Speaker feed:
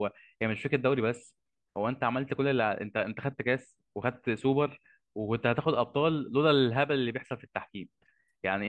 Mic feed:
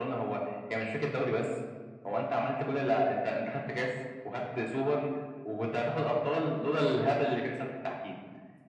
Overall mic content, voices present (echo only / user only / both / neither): echo only